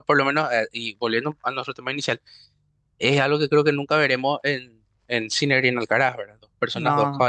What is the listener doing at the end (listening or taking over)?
listening